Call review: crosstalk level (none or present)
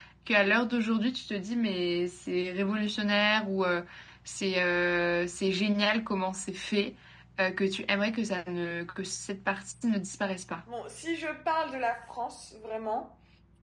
none